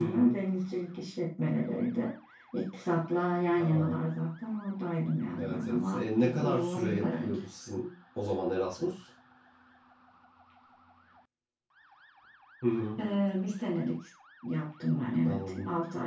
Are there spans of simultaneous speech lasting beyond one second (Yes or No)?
Yes